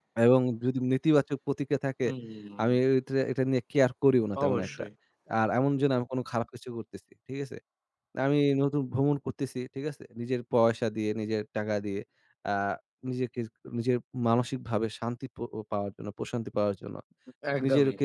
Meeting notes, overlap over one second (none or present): none